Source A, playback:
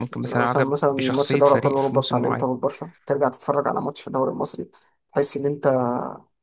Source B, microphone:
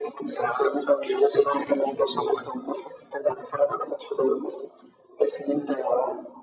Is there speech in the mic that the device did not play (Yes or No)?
No